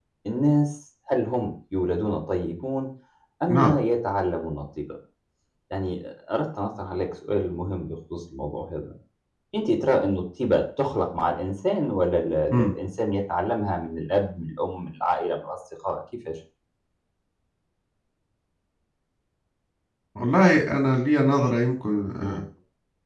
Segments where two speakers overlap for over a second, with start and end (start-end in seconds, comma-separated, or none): none